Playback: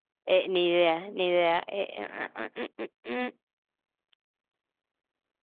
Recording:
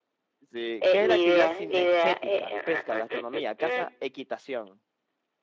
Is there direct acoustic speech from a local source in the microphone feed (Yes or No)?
Yes